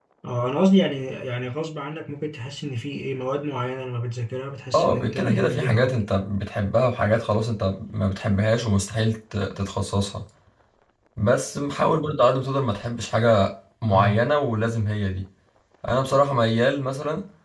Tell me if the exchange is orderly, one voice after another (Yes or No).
No